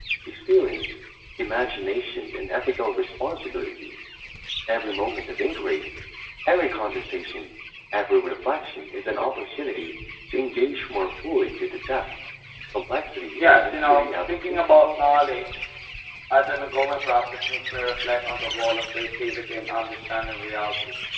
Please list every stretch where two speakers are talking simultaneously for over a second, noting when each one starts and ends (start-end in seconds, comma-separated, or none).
13.4-15.0